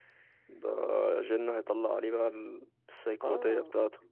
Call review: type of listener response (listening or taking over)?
taking over